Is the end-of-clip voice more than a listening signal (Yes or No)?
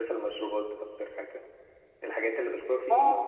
Yes